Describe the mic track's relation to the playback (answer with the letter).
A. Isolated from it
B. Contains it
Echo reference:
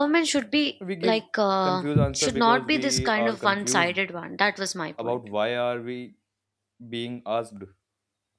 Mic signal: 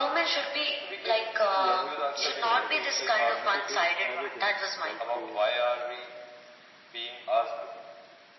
B